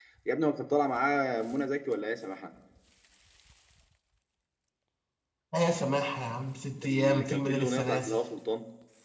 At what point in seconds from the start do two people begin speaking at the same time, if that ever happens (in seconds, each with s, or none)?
6.8 s